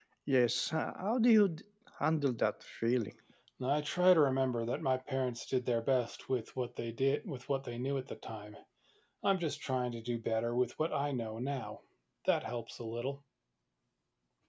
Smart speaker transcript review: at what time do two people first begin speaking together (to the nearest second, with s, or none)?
none